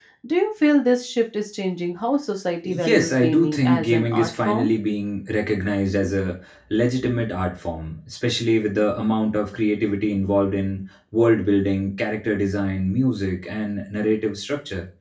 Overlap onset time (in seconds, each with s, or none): 2.6 s